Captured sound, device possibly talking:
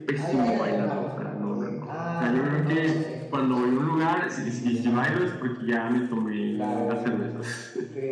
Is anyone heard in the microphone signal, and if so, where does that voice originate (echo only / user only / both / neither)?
both